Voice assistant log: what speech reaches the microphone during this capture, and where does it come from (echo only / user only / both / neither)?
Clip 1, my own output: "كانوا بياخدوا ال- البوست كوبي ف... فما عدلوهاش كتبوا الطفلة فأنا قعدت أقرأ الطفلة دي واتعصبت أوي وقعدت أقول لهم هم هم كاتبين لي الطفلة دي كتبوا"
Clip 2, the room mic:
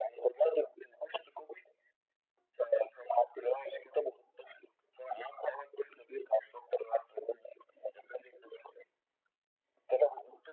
echo only